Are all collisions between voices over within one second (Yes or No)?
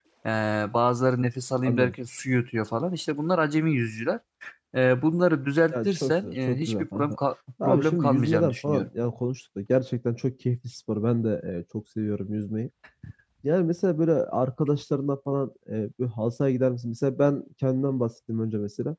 No